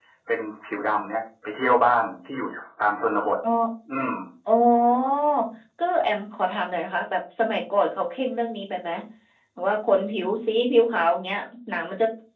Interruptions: none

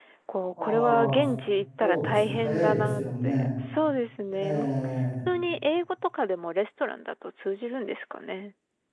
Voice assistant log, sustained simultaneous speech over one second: present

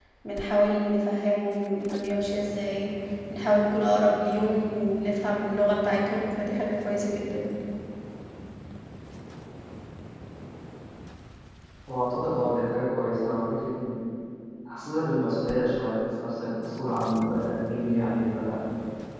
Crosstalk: none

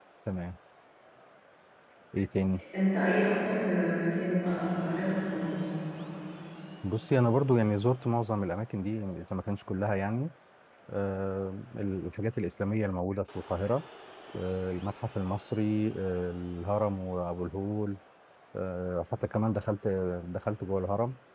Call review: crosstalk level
none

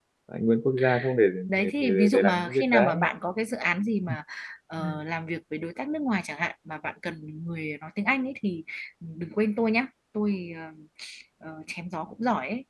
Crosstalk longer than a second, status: present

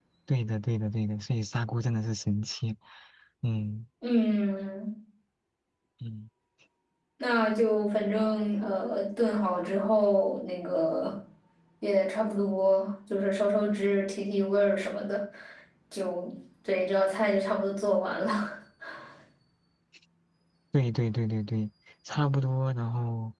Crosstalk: none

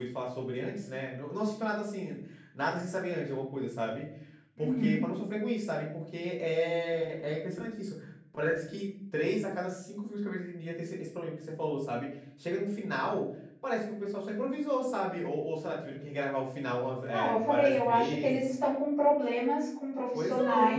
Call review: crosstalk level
present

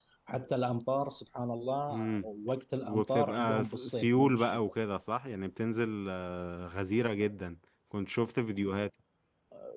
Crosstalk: present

